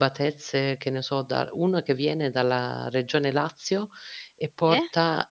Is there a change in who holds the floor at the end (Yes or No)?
No